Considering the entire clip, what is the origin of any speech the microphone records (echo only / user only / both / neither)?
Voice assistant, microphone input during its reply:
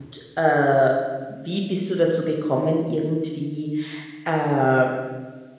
user only